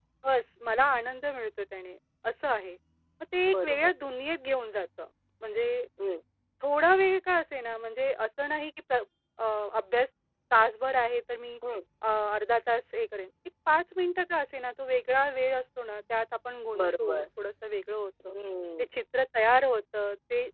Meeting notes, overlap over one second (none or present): none